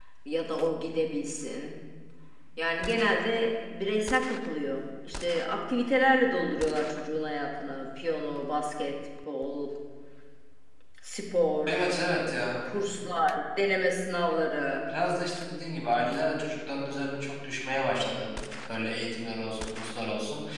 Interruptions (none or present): none